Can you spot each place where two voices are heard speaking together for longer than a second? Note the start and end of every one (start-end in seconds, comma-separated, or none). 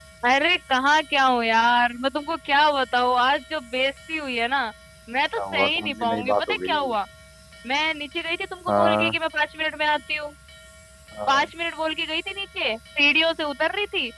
5.4-6.8